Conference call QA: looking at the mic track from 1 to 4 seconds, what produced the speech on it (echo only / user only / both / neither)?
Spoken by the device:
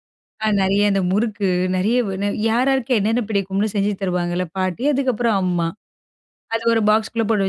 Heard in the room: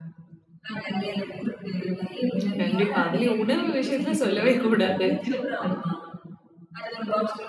both